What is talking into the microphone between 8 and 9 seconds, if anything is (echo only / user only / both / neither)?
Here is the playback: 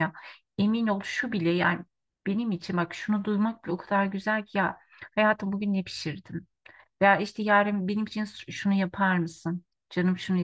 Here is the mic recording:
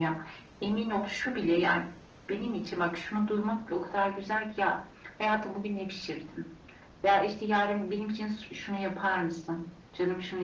echo only